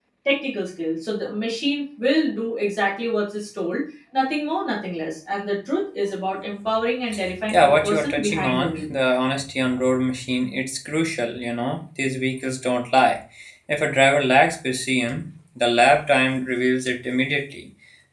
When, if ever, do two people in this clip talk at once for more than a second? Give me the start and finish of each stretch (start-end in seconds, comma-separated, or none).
7.5-8.8